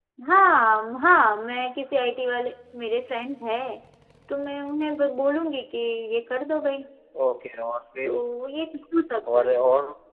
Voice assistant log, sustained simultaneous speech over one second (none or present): none